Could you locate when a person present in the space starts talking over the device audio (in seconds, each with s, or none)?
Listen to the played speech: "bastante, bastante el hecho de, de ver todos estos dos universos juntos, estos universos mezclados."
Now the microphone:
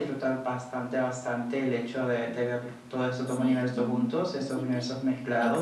3.2 s